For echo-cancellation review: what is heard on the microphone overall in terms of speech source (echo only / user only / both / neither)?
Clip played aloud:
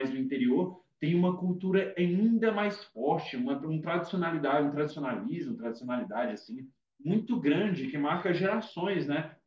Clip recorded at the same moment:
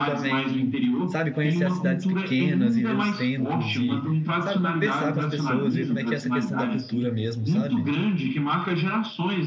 both